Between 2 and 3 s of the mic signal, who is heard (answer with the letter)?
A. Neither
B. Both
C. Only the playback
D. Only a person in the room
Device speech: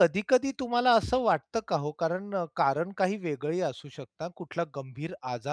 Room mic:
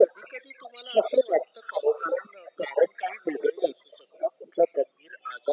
C